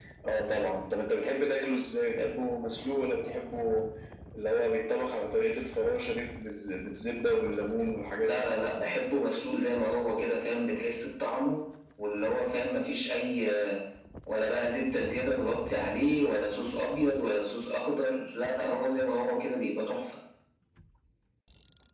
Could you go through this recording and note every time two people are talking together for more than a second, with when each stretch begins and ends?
none

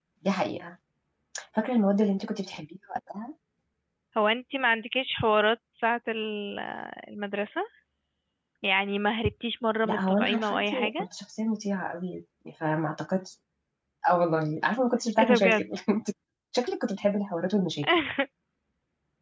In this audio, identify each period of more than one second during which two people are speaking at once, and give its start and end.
9.8-11.1

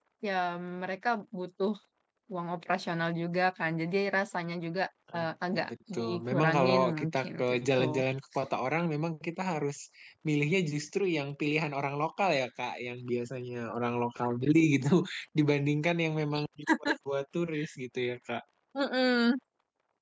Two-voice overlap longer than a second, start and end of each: 5.6-7.8

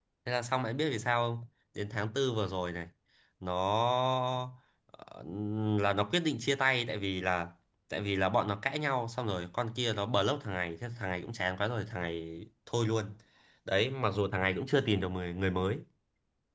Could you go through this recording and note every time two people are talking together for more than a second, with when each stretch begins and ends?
none

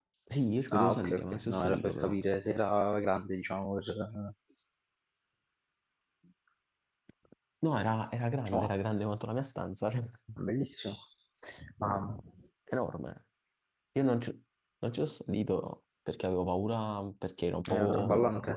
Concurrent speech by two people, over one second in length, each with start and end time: 0.8-2.2

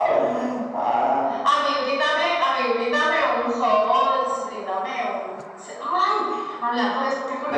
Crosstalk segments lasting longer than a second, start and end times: none

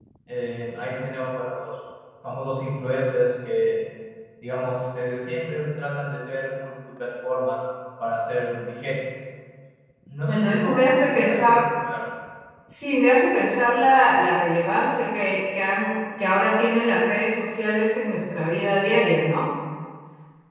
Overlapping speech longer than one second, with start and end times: 10.3-11.6

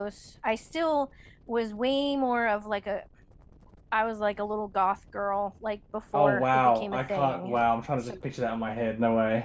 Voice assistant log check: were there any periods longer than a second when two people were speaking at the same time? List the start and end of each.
6.1-7.6

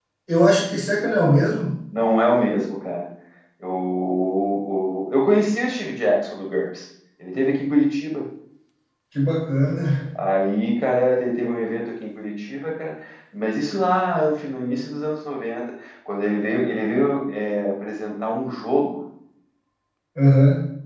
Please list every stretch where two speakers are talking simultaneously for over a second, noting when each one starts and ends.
none

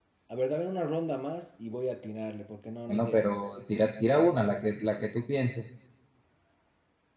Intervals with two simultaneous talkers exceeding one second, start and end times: none

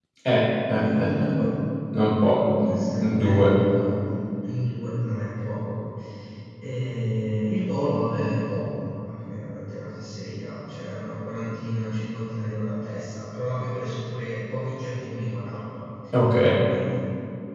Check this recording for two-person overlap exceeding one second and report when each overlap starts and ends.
none

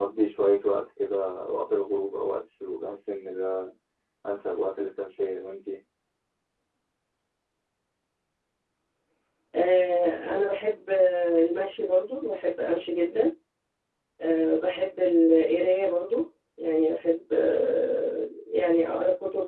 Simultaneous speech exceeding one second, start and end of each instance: none

